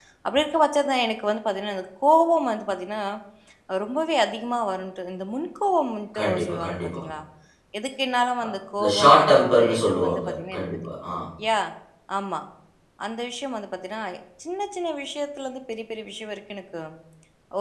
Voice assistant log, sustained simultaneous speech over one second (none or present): present